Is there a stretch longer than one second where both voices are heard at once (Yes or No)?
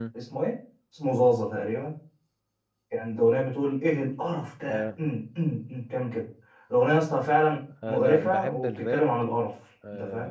Yes